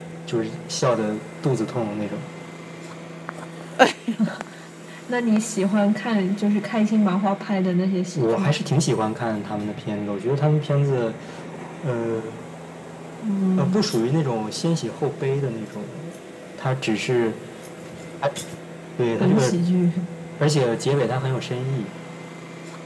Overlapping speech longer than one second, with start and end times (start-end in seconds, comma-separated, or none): none